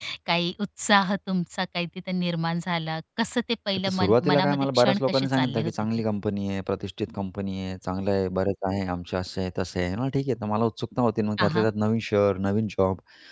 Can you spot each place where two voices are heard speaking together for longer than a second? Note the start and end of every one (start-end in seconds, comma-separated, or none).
3.8-5.7